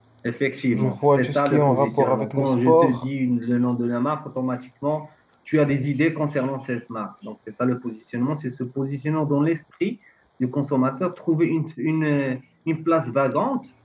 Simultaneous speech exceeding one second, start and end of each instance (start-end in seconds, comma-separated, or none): 0.7-3.0